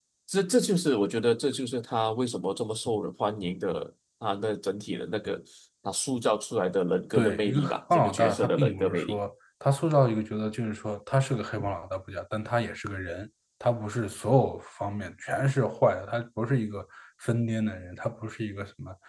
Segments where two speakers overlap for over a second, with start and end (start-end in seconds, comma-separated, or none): 7.1-9.2